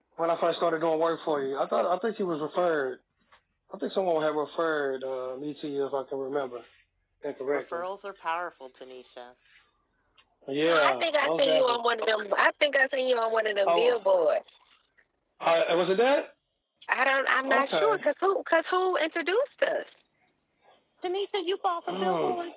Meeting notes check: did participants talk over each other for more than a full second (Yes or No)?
Yes